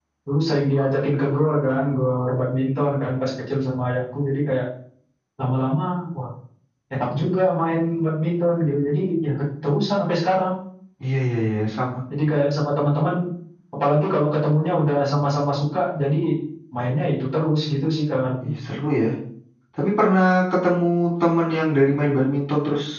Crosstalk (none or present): none